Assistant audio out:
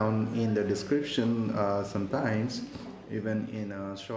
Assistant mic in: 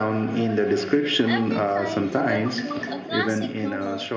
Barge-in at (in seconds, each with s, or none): 1.3 s